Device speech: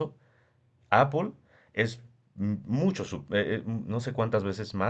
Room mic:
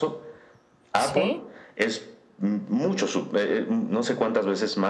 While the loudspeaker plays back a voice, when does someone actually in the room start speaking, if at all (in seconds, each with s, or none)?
1.1 s